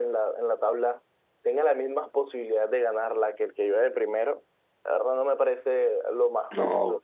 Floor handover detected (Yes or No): Yes